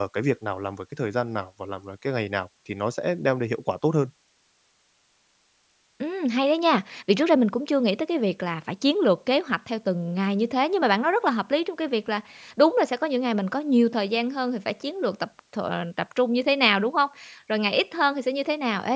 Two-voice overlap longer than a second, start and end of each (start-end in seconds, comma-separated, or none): none